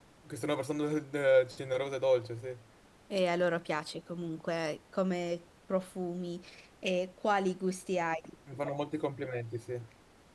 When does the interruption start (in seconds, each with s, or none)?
none